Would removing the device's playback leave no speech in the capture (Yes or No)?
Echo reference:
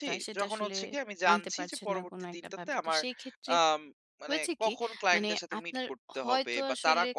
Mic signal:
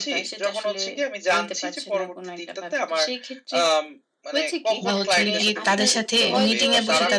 No